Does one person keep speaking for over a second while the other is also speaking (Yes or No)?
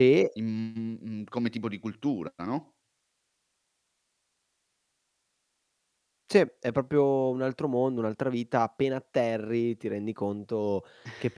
No